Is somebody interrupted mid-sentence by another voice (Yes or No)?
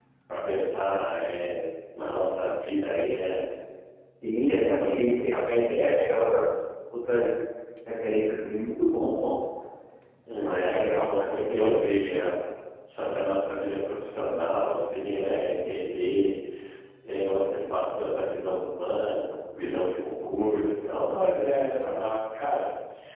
Yes